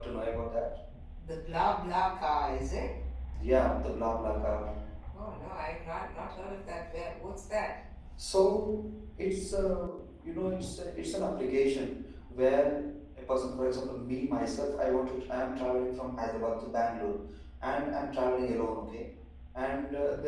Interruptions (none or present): none